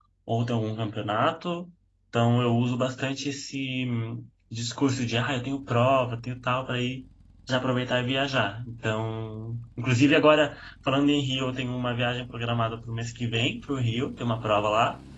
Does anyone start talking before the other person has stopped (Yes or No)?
No